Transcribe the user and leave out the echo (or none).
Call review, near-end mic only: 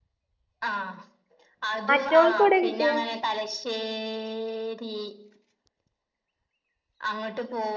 മറ്റവൾക്ക്‌ എവ്ടെ കിട്ടിയേ